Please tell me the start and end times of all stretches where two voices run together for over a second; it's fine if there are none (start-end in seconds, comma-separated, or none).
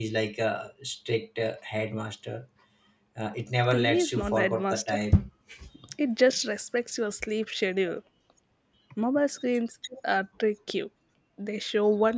3.7-5.0